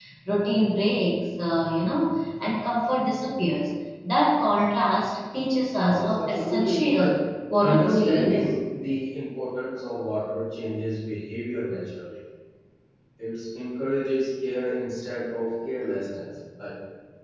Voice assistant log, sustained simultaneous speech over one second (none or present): present